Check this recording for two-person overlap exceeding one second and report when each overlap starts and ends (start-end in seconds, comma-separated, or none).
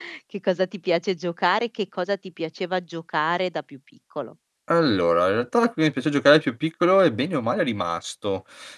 none